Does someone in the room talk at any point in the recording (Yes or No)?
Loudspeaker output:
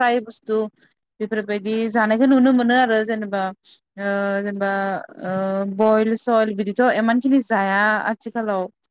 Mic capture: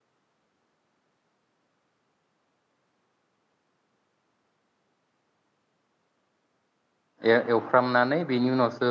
Yes